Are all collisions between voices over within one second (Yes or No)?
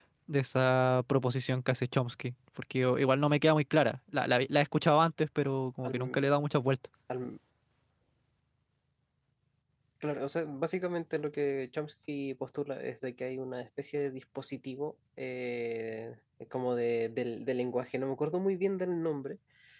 Yes